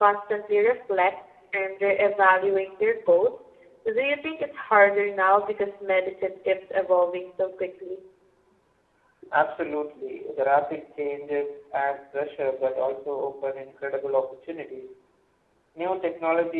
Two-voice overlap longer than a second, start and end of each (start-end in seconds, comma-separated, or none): none